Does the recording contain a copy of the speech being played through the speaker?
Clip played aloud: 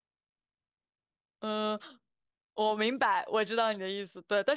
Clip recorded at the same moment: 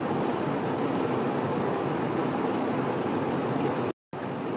No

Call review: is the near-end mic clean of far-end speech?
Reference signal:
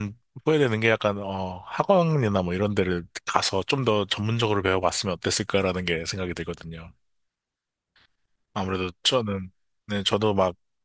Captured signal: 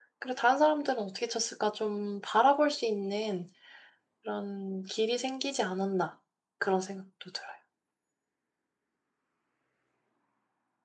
Yes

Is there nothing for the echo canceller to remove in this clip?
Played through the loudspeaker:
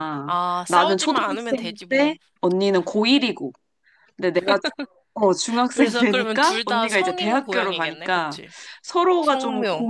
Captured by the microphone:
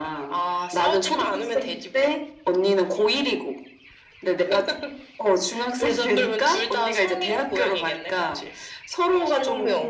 No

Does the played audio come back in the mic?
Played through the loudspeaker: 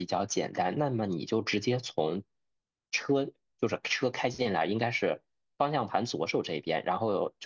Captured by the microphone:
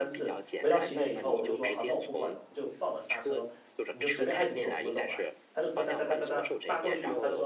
Yes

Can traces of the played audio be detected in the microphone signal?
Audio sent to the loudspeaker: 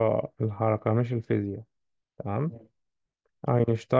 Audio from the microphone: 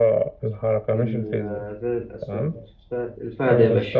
Yes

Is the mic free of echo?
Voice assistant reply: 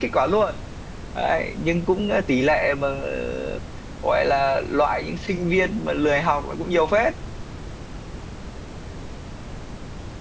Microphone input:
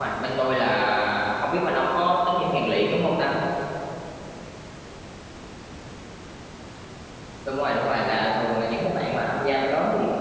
Yes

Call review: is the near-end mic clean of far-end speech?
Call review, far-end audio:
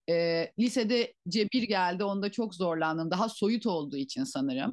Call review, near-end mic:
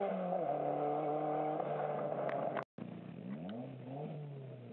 Yes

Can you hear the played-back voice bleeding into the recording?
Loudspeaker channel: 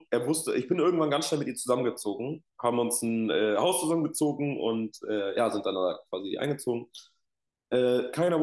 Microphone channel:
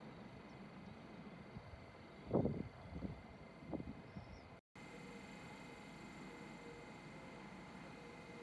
No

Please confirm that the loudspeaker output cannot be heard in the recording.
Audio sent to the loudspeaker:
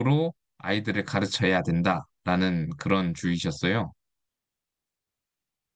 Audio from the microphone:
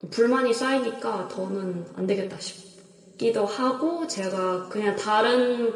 Yes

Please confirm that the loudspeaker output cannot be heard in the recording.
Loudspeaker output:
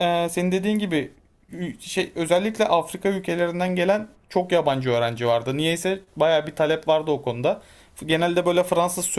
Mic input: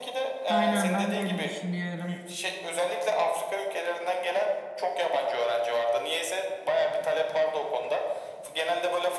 No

